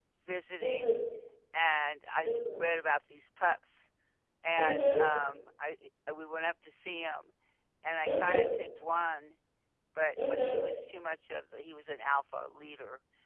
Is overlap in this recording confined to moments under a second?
Yes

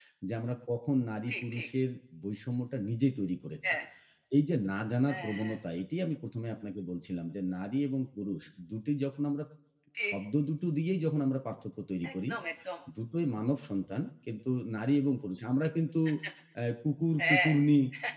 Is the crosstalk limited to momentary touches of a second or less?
Yes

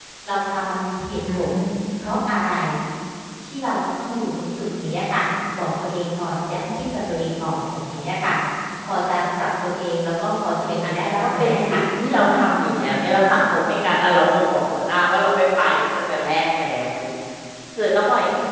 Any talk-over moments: Yes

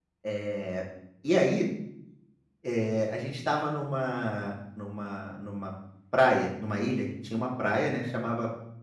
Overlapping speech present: No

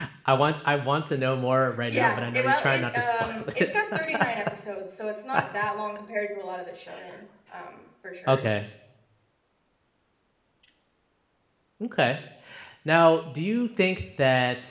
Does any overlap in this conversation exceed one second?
Yes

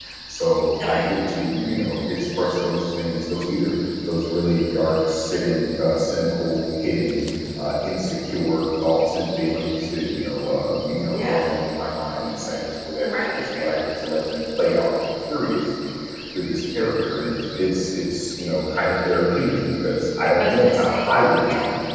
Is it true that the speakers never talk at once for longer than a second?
No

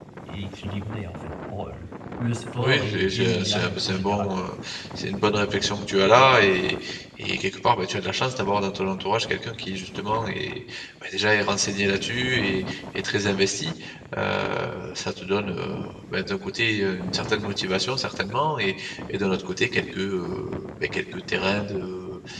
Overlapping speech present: Yes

